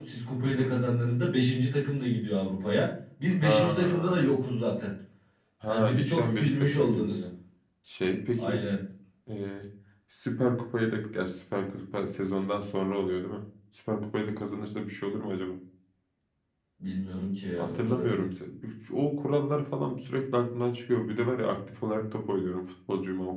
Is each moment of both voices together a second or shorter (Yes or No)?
No